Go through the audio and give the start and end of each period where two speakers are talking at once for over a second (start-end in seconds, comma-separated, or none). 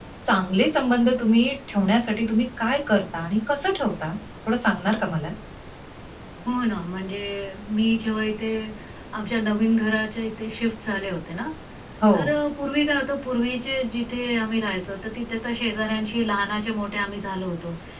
none